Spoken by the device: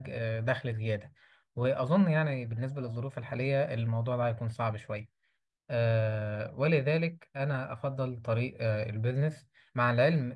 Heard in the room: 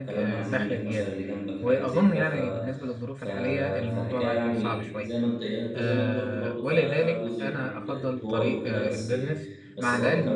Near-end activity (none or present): present